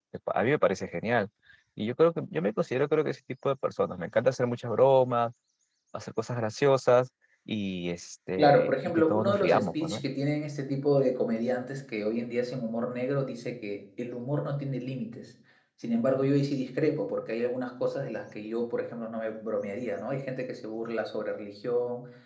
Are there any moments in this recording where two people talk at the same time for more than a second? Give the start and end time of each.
8.4-10.0

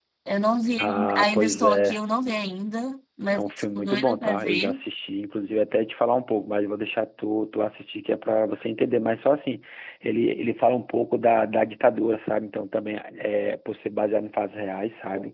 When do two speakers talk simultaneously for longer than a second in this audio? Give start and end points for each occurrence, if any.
0.8-2.0, 3.3-4.8

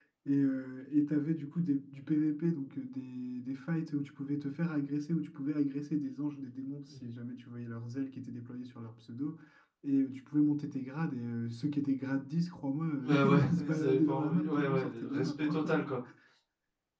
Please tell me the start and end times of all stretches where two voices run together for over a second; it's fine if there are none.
13.0-15.8

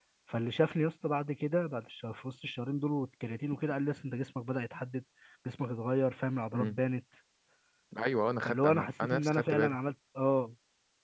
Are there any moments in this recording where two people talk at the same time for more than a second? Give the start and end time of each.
8.4-9.8

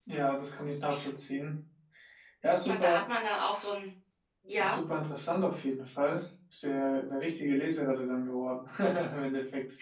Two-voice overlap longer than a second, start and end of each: none

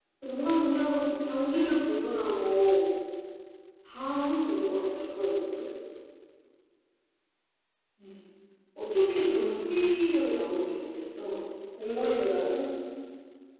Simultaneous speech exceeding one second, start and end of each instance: none

